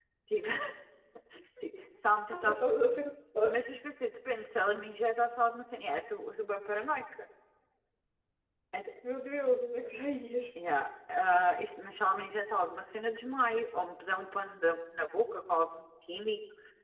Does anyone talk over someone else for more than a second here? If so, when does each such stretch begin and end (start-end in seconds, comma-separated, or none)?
none